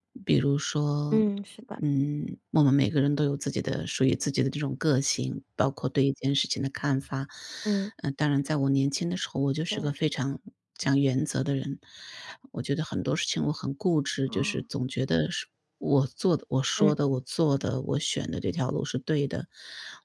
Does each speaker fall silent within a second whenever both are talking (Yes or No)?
Yes